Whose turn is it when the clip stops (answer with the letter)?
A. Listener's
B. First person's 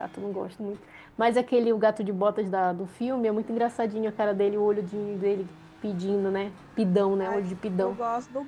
A